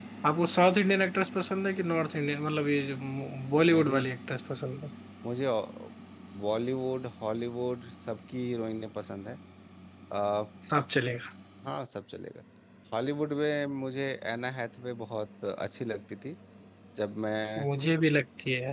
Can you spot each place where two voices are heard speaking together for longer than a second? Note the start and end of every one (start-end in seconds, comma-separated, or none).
none